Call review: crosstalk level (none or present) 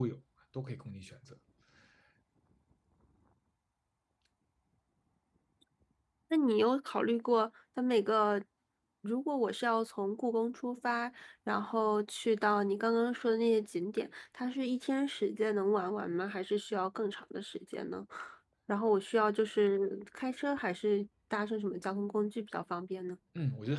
none